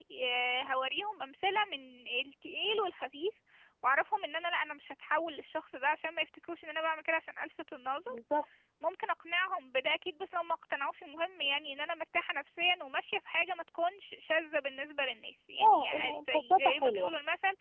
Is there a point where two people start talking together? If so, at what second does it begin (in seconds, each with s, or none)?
15.6 s